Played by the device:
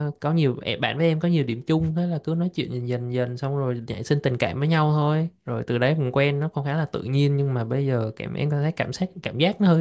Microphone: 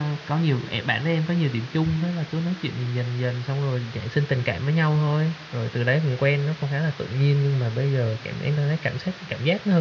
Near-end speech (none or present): none